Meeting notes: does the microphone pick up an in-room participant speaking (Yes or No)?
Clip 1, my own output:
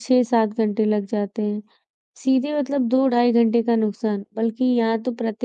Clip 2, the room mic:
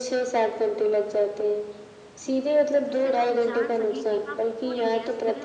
Yes